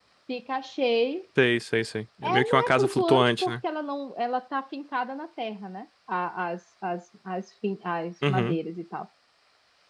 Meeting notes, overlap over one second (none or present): present